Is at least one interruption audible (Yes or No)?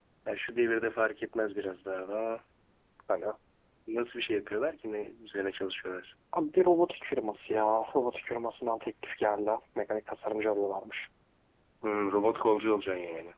No